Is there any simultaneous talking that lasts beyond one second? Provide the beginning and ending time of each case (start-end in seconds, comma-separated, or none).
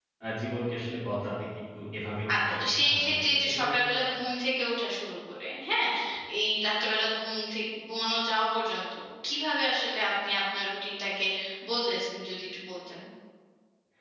2.3-3.8